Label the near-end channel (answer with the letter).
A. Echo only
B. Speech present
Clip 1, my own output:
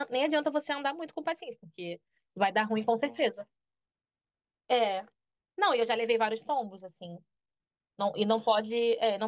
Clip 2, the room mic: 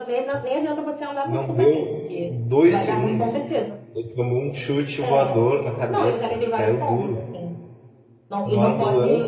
B